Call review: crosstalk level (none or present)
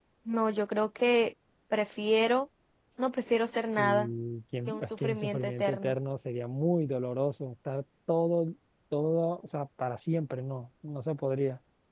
present